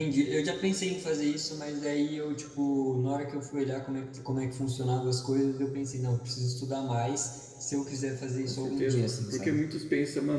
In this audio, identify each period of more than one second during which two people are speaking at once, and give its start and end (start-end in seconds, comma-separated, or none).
8.4-9.6